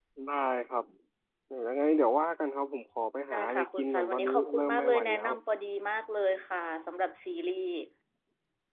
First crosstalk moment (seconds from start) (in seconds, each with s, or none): 3.3 s